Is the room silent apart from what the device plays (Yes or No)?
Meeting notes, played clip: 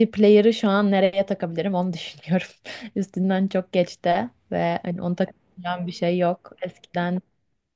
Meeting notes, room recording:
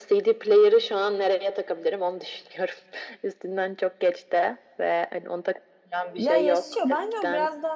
No